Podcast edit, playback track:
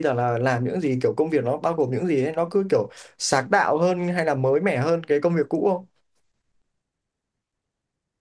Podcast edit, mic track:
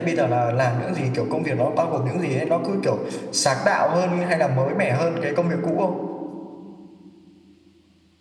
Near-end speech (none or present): none